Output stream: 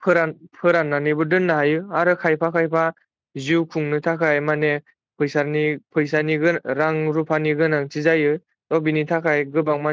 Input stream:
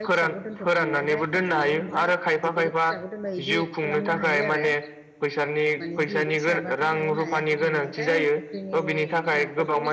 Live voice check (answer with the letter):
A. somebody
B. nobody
A